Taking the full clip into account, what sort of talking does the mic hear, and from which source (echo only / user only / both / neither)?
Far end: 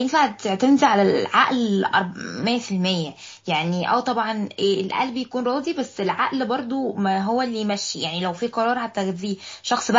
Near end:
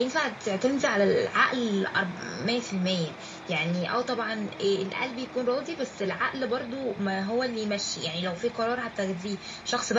echo only